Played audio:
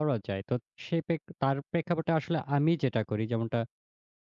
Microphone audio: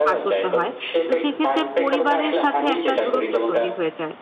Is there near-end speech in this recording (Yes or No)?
Yes